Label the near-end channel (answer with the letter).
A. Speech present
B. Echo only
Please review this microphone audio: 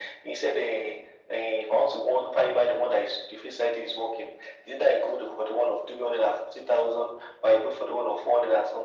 B